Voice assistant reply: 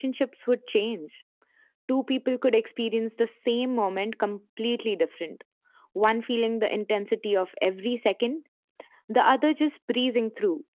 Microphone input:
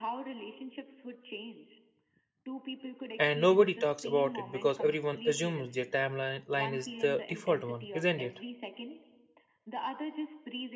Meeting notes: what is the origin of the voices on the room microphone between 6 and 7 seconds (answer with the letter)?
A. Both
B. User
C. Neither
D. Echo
A